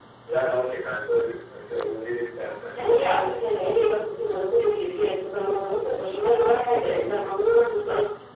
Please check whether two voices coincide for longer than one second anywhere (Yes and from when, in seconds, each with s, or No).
No